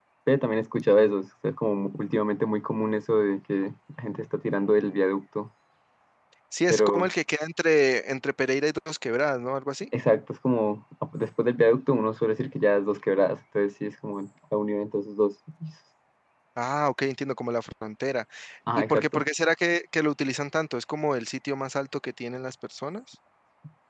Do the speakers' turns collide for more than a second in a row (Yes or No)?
No